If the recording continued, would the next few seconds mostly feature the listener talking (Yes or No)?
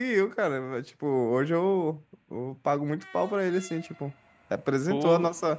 No